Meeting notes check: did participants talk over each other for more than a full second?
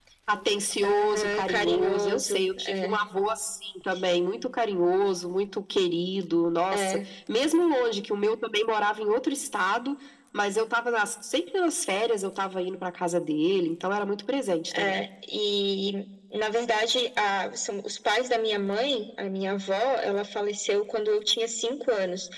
Yes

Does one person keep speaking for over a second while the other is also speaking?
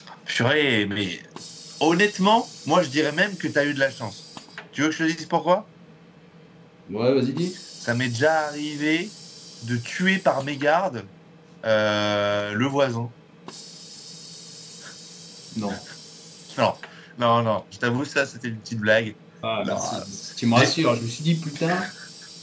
No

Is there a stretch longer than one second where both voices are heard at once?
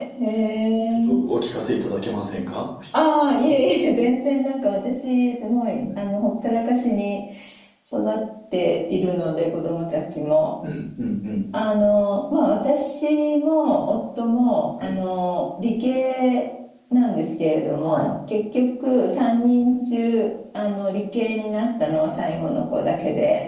No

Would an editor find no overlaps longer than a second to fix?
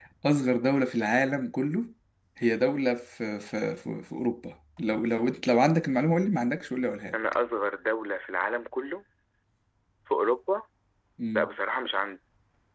Yes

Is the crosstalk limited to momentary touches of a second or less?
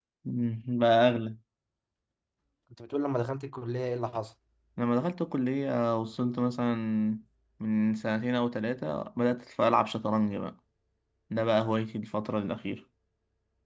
Yes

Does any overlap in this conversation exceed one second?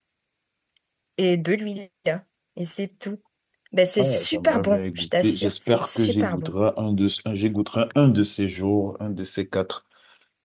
Yes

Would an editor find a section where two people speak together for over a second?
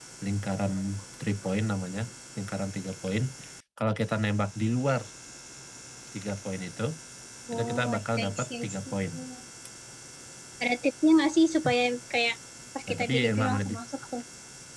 Yes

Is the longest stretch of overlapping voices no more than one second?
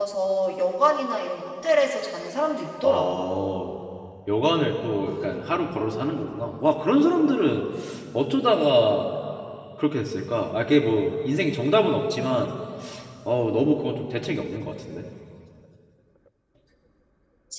Yes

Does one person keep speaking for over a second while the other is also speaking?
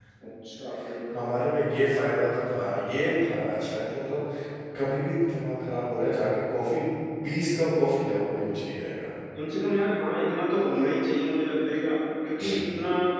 No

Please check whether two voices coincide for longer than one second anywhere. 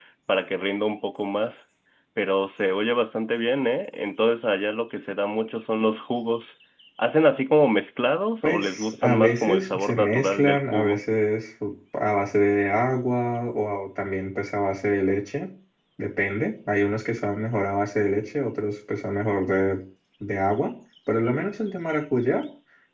Yes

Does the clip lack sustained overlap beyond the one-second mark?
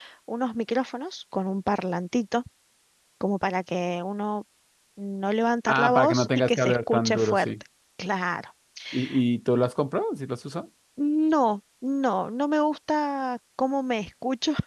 No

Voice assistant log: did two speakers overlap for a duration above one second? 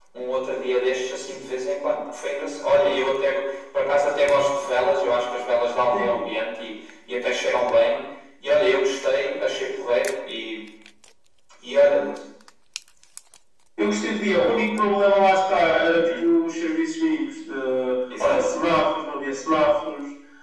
No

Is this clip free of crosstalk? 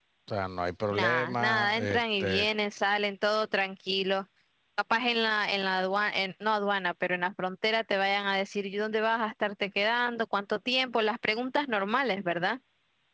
No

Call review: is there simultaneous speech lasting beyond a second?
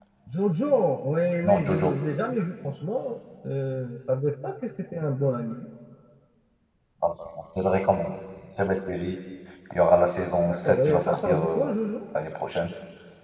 Yes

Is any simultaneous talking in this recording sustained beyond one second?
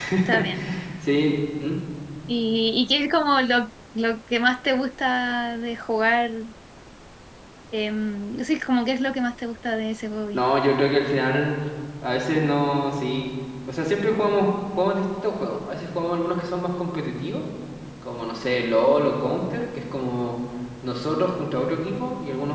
No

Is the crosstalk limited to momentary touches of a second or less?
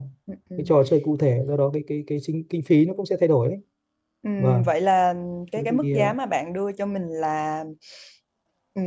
Yes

